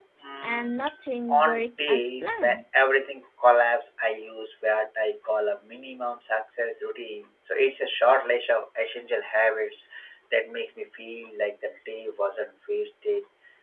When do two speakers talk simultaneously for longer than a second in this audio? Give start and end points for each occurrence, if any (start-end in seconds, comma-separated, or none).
1.3-2.6